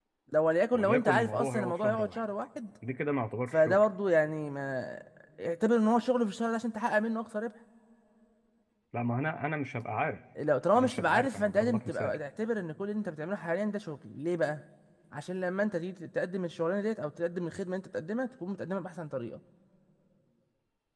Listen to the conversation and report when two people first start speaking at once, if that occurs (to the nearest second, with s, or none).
1 s